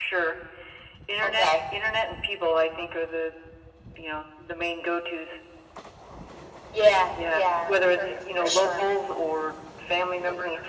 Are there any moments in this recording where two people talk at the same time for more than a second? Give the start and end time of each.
7.3-8.8

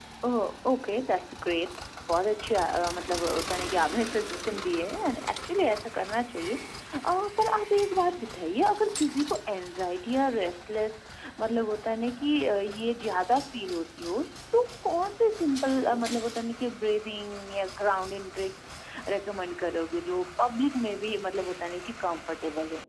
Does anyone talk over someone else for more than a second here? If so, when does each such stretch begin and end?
none

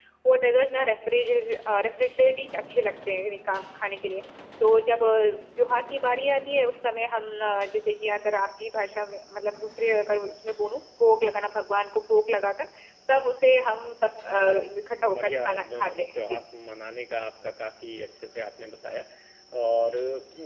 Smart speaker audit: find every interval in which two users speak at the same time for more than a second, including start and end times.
15.2-16.4

